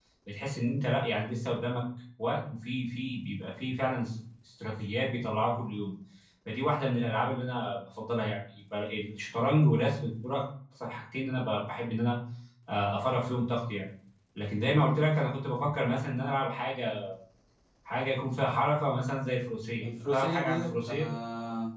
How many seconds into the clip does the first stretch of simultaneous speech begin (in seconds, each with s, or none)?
19.8 s